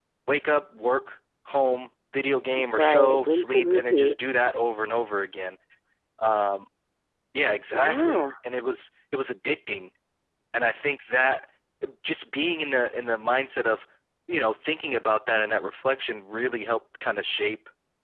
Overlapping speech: Yes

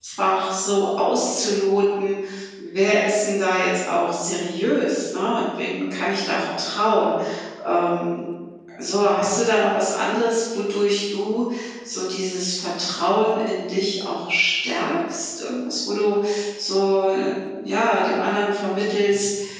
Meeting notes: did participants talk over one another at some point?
No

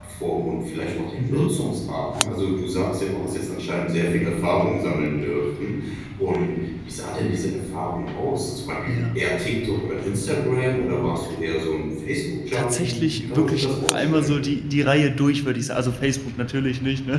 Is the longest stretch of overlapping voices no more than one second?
No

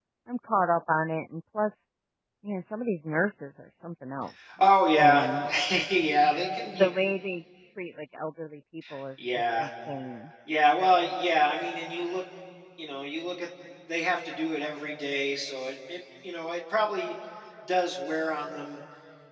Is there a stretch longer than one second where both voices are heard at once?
No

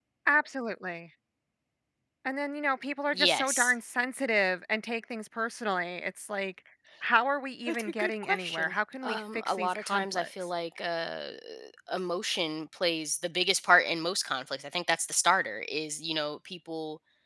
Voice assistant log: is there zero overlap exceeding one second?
No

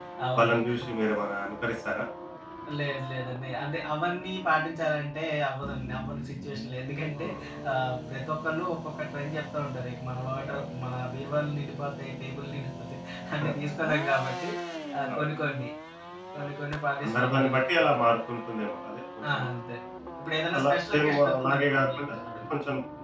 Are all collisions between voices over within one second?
No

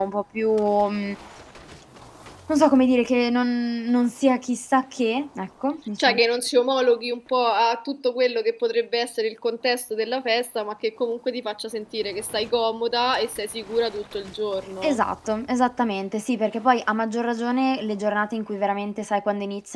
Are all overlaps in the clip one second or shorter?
Yes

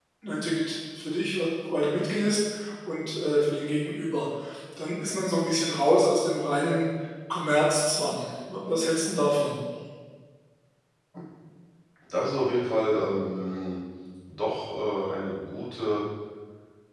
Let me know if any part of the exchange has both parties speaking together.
No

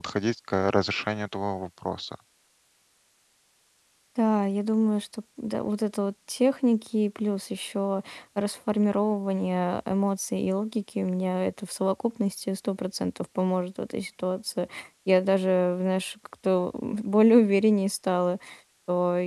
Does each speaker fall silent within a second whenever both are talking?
Yes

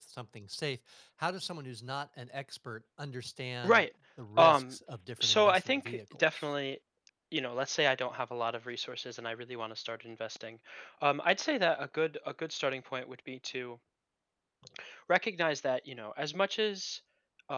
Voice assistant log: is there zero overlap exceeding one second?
No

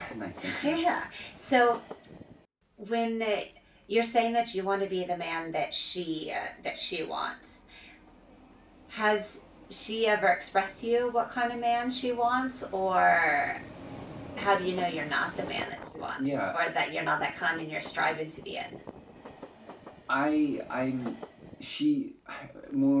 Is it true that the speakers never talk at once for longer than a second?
Yes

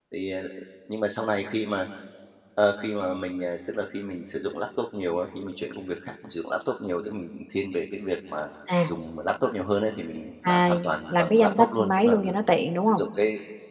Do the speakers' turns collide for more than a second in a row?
Yes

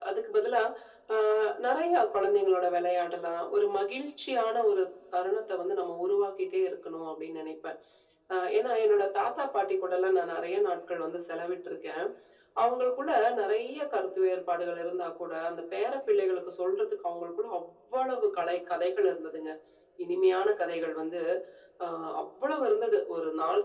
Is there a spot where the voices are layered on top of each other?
No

